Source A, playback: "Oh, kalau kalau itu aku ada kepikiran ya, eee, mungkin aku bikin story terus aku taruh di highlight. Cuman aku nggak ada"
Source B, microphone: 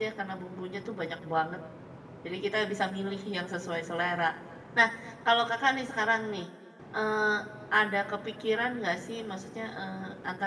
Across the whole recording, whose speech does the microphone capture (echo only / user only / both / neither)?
user only